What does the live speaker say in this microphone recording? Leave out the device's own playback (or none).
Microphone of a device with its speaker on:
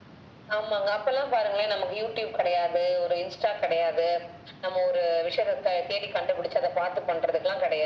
none